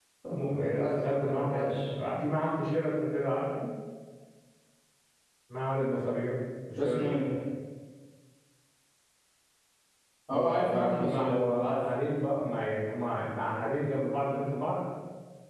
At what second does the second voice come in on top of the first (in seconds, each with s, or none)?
0.5 s